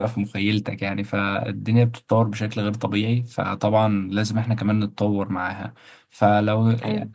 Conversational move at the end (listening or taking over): listening